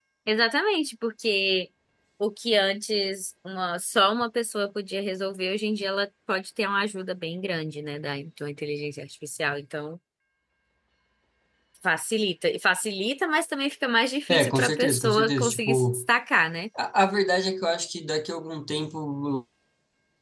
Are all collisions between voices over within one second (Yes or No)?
No